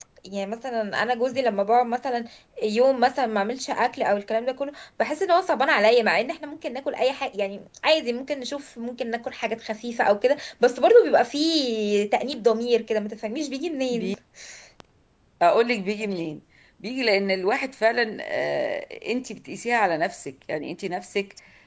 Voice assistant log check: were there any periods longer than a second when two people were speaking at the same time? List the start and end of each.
none

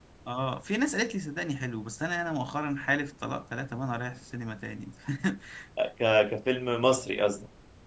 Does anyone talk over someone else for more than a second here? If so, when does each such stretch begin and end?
none

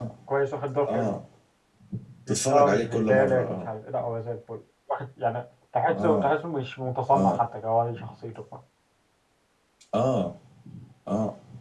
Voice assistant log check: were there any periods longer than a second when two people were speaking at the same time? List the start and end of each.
2.3-3.7

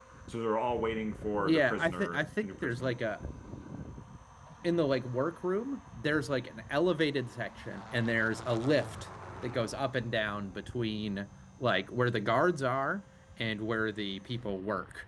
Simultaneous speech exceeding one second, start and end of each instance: 1.4-3.0

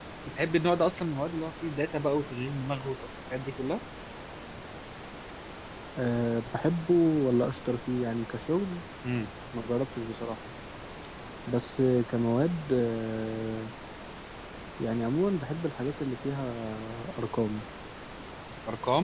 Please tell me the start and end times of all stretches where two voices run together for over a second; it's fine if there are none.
none

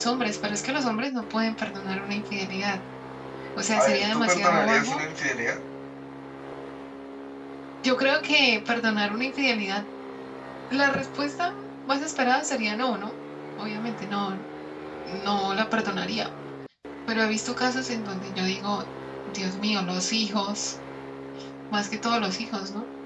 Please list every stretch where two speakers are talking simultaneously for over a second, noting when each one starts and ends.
3.8-5.0

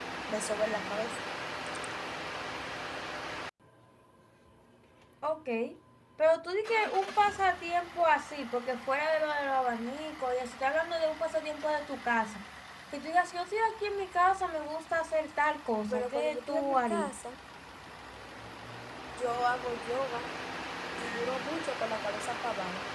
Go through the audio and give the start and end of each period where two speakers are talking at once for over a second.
15.9-17.1

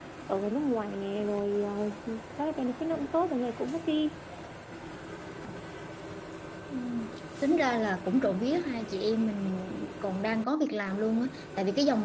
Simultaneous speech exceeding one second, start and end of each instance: none

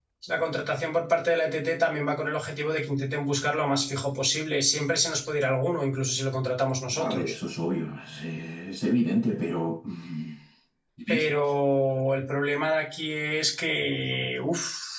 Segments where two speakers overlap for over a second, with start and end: none

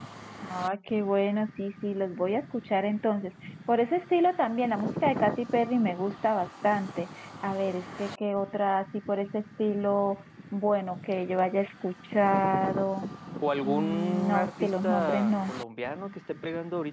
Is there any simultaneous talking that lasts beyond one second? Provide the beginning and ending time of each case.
13.6-15.5

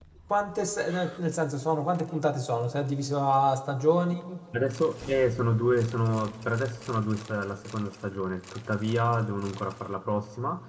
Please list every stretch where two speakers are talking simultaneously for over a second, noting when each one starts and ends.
none

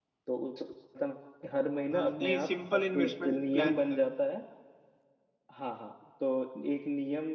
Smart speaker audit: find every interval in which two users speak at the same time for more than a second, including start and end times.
1.9-4.0

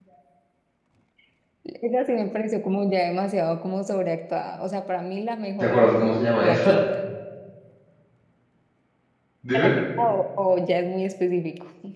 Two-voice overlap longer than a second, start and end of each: 5.6-6.8

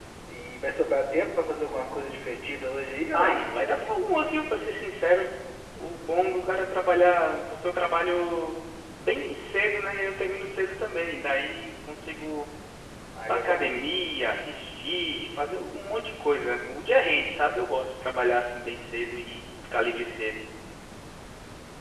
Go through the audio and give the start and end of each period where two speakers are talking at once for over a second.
none

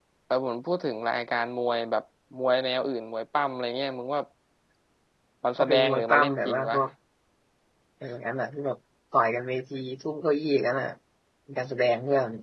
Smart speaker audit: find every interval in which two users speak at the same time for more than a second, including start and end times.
5.6-6.8

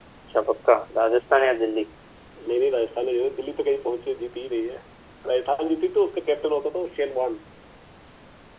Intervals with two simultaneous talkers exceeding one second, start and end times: none

